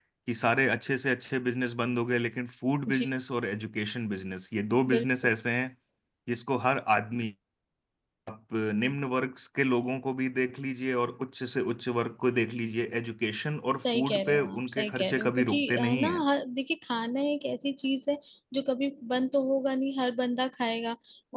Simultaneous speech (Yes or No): Yes